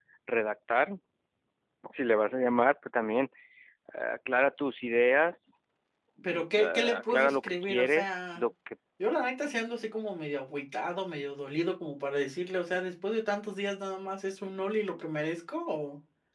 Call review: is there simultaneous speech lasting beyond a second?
Yes, from 6.2 s

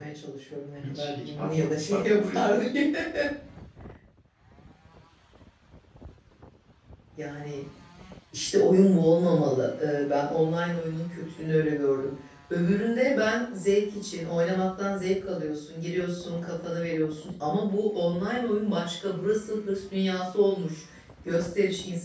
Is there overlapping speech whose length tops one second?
Yes, from 0.9 s

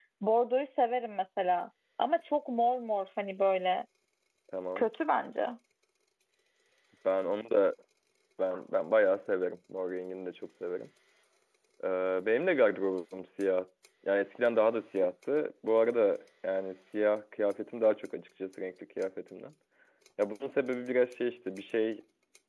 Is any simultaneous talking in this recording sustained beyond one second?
No

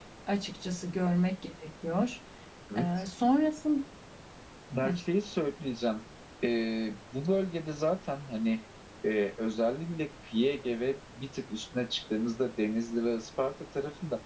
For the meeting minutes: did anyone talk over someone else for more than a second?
No

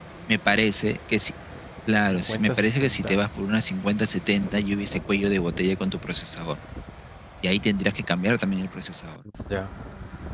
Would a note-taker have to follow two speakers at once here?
Yes, from 2.0 s

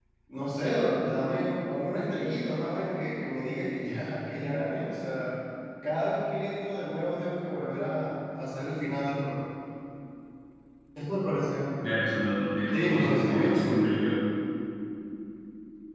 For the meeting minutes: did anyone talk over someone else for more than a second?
Yes, from 12.7 s

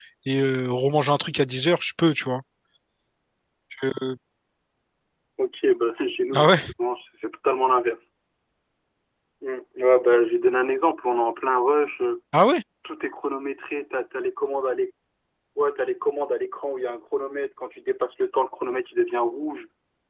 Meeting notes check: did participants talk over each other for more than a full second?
No

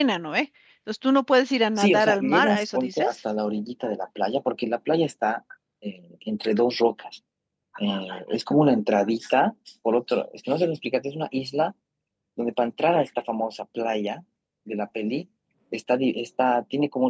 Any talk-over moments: Yes, from 1.8 s

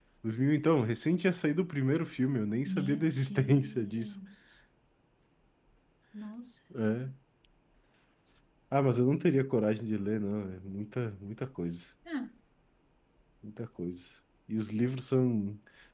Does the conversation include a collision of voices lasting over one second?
Yes, from 2.7 s

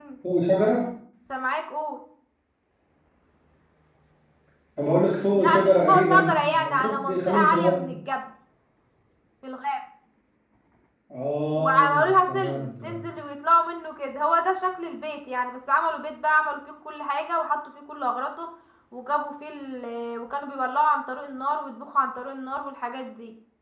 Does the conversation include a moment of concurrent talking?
Yes, from 5.3 s

